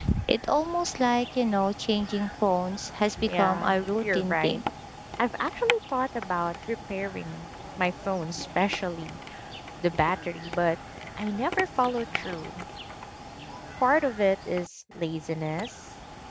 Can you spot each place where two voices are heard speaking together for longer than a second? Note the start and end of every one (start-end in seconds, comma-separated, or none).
3.2-4.6